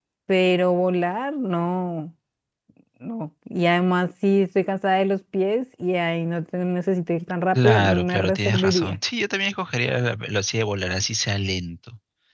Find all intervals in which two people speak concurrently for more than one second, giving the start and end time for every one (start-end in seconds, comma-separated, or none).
7.5-9.0